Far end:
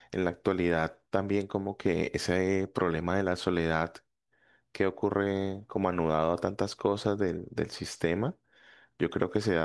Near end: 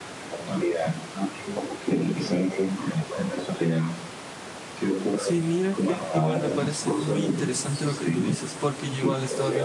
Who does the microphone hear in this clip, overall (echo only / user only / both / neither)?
both